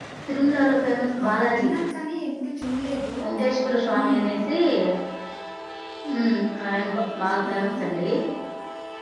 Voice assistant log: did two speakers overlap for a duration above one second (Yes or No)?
No